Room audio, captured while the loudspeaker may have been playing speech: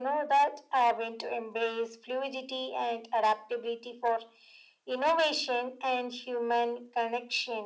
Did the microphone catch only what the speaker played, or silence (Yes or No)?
Yes